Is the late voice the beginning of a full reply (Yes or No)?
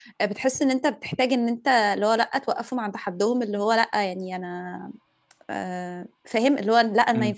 No